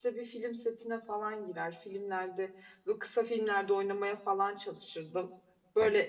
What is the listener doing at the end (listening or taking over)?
listening